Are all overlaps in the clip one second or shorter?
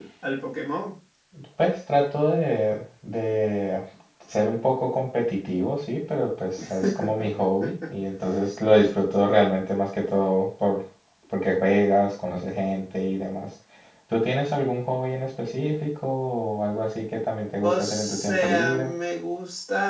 No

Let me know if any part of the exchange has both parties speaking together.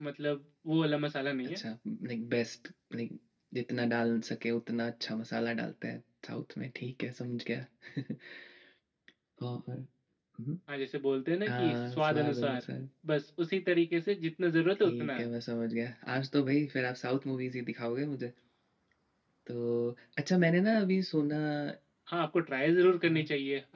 Yes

